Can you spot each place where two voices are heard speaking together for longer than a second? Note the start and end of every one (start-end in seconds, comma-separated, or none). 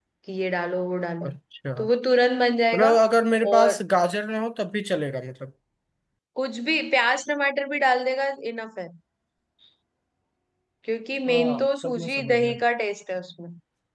11.3-12.5